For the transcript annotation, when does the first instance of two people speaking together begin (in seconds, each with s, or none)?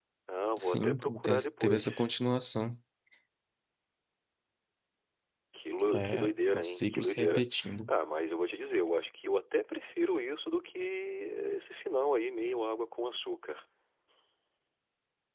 0.6 s